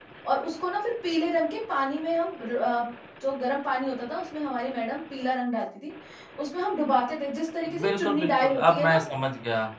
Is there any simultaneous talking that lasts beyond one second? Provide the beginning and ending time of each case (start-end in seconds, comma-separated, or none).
7.7-9.0